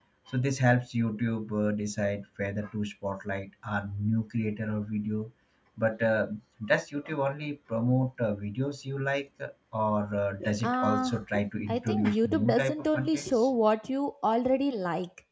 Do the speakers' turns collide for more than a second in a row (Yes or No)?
Yes